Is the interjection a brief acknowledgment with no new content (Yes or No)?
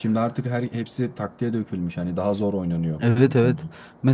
No